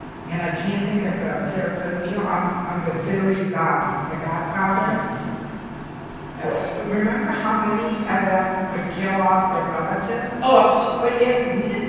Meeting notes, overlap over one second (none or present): none